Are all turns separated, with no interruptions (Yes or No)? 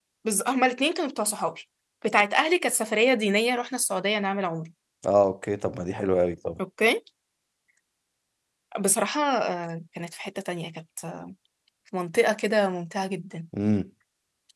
Yes